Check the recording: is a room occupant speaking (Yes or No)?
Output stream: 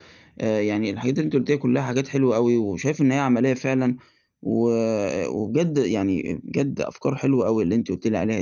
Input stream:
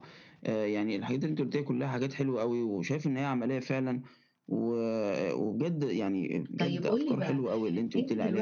Yes